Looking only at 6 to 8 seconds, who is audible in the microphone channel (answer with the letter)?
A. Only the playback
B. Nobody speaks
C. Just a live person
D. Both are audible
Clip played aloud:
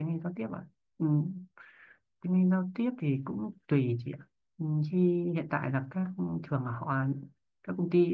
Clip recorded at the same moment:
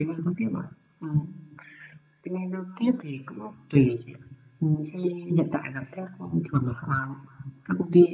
A